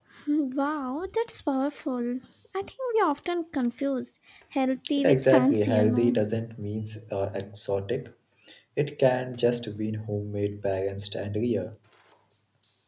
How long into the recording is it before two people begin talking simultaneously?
5.0 s

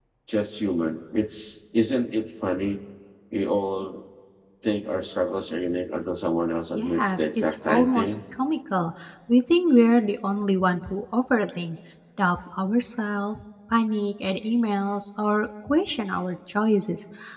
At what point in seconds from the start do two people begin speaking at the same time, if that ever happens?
6.8 s

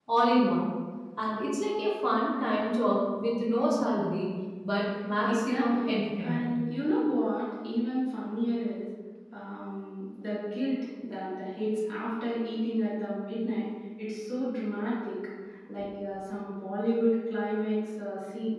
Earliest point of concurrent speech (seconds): 5.2 s

